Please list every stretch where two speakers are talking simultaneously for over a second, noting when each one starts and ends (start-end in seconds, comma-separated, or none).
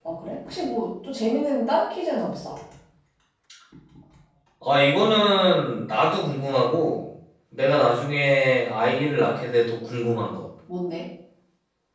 none